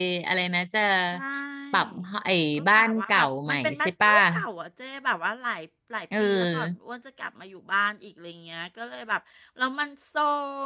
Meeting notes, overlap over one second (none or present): present